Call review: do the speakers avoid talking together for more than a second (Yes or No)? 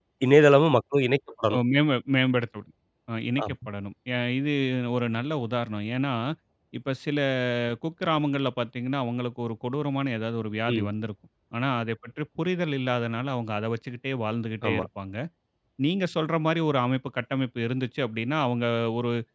Yes